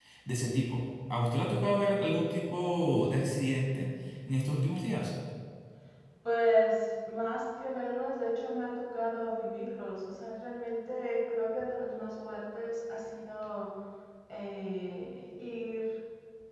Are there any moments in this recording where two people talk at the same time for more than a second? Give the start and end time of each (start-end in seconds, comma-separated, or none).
none